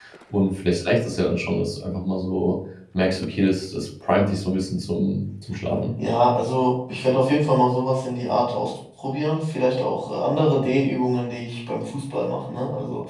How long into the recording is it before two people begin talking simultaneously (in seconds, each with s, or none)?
none